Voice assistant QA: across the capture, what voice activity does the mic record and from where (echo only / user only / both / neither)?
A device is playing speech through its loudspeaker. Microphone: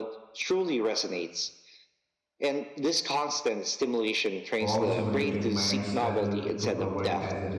both